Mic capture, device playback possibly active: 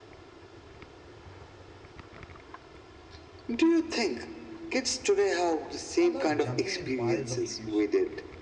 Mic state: both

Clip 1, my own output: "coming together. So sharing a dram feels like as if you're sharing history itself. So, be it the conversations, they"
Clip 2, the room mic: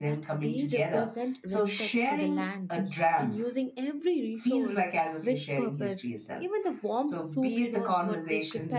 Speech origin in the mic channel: both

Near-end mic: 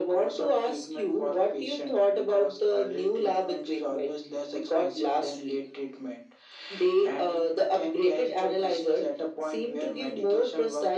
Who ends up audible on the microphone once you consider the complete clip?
echo only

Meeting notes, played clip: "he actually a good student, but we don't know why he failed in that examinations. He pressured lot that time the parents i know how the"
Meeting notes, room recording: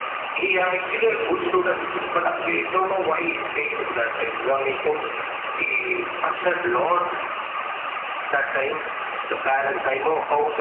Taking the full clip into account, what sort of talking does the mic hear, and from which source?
echo only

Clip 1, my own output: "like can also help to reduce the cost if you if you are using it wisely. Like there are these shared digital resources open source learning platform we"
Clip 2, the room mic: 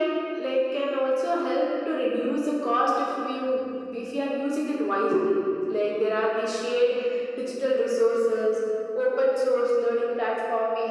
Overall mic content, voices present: echo only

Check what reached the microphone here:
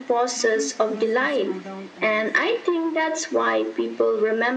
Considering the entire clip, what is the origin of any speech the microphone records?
both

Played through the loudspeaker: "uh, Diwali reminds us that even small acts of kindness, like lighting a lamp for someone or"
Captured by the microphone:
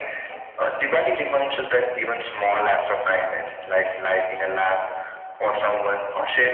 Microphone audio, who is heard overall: echo only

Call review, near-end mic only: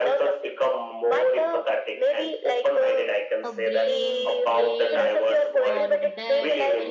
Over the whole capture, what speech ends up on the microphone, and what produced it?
both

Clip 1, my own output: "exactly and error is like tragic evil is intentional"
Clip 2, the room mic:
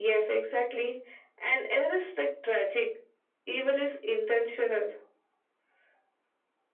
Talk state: echo only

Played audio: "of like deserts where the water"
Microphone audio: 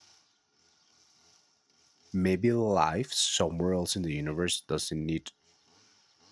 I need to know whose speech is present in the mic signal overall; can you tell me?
user only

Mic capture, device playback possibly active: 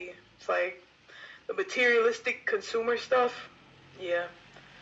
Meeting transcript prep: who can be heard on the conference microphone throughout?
echo only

